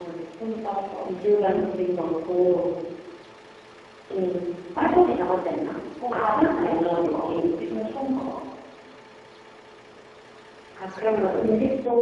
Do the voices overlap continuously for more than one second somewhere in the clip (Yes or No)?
Yes